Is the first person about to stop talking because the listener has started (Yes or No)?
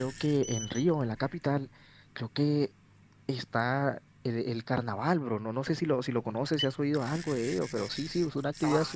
Yes